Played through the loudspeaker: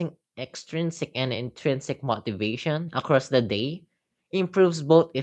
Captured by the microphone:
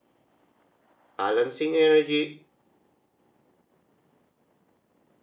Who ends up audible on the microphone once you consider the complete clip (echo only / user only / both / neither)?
user only